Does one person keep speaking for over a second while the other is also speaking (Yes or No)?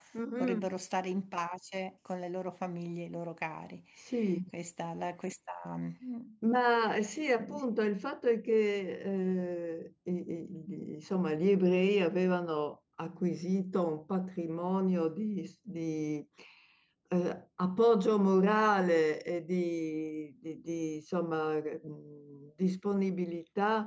No